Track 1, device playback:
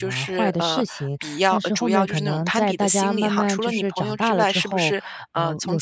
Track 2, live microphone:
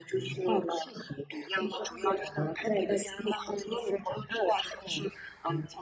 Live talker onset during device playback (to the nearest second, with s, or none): none